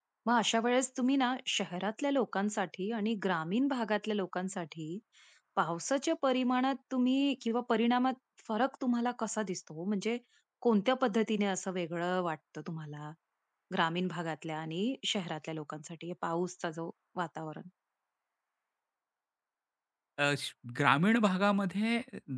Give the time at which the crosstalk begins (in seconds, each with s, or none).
none